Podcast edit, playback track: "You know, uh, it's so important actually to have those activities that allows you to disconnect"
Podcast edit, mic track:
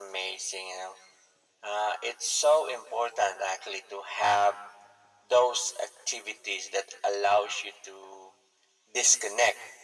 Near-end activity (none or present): none